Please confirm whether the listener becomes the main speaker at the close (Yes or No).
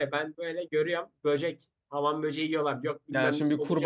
Yes